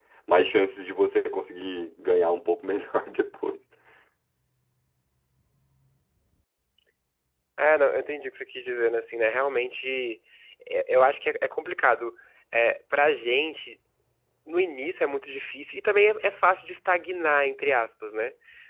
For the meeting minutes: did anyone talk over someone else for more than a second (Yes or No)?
No